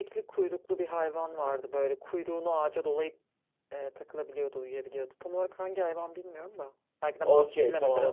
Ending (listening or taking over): taking over